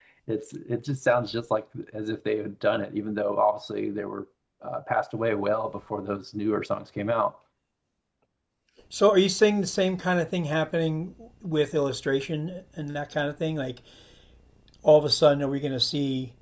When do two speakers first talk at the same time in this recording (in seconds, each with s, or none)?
none